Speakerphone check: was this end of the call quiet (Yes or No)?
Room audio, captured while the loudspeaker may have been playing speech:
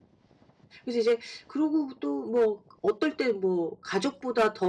No